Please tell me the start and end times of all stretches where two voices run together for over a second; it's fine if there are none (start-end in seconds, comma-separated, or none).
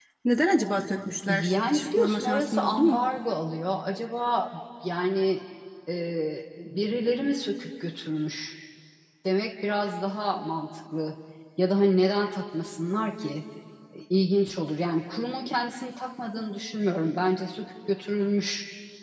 1.3-3.0